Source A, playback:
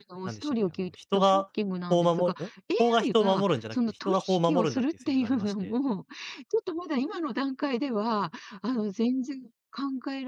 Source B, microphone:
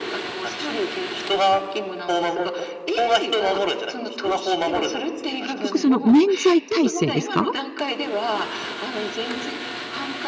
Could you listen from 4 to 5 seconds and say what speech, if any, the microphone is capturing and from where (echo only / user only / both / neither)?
echo only